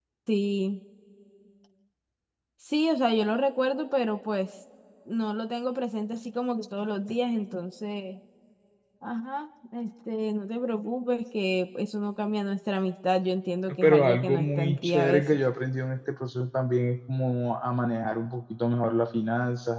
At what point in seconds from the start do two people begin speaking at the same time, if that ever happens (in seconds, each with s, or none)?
13.7 s